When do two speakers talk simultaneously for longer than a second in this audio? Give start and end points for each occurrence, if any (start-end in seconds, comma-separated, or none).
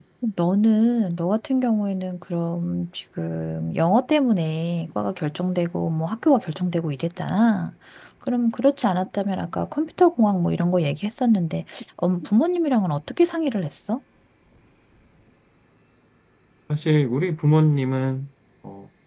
none